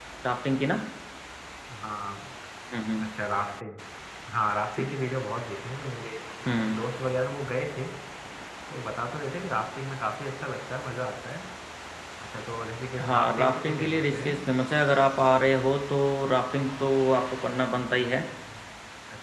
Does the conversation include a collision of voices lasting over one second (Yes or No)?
Yes